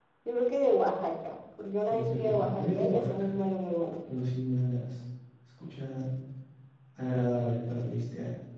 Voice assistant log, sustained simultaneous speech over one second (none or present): present